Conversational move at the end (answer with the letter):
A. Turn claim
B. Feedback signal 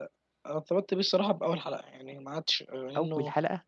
B